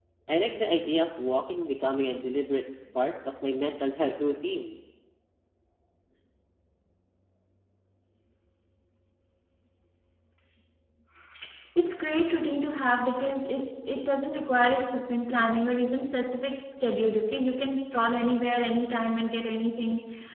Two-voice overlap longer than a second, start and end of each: none

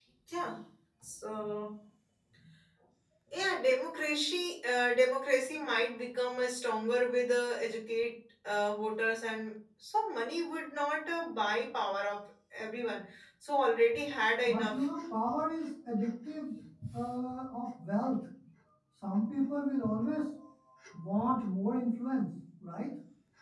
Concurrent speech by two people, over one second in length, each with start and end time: none

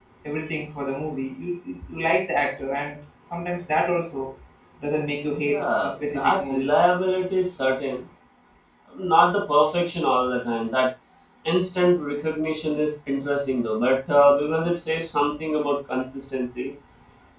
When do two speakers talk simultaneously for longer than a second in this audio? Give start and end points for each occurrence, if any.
5.4-6.7

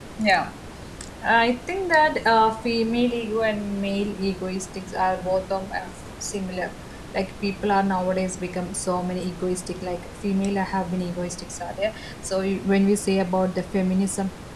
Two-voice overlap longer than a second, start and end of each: none

